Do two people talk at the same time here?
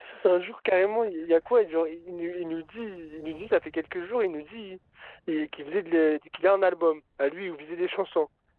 No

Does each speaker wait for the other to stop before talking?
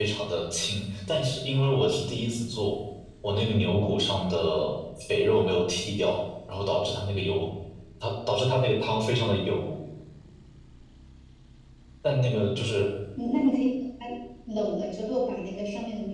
Yes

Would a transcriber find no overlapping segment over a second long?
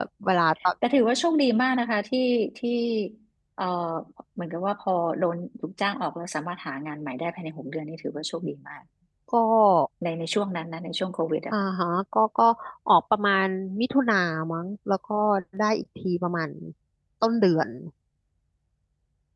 Yes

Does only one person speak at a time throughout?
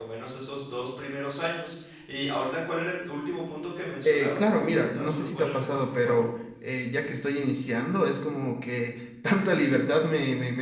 No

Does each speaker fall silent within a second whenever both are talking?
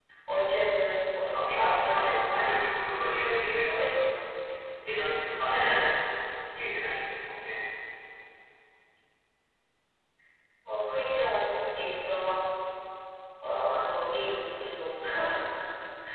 No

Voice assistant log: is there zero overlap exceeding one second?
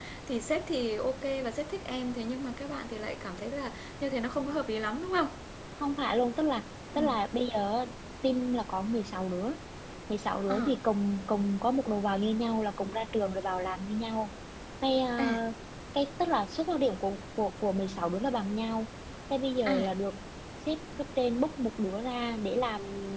Yes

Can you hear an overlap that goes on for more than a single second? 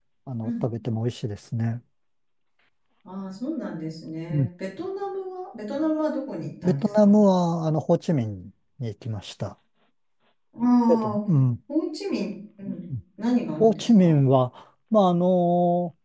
No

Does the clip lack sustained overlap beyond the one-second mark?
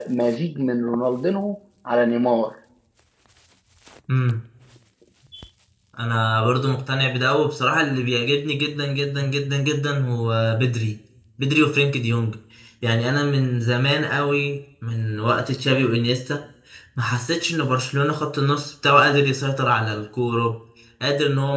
Yes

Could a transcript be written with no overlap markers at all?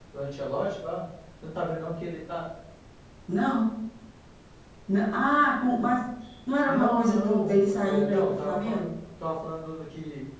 No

